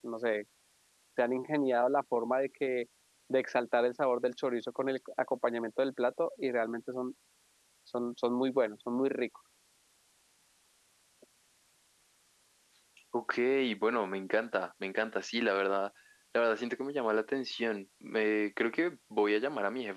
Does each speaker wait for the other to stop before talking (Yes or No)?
Yes